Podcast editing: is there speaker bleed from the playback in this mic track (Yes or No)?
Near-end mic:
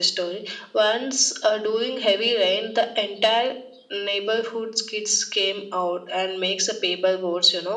Yes